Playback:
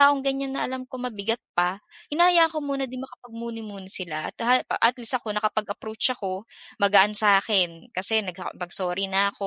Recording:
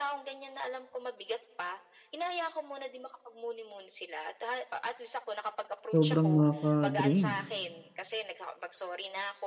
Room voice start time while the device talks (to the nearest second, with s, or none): 6 s